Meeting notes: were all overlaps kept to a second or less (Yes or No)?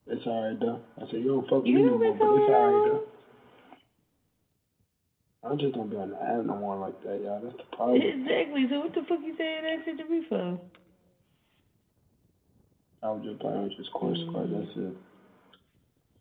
No